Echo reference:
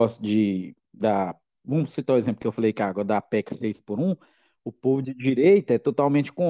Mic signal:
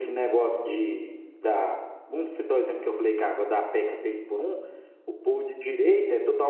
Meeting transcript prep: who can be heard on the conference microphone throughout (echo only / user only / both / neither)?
echo only